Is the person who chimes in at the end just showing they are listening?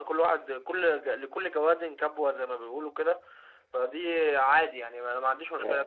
No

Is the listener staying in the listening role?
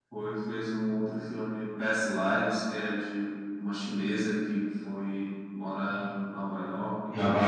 No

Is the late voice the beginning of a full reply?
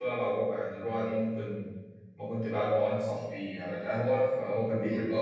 No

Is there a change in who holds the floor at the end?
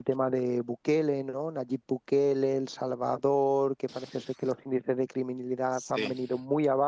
No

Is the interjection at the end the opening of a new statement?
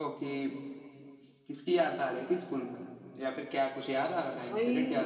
Yes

